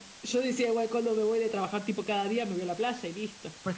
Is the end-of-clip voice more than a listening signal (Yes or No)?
Yes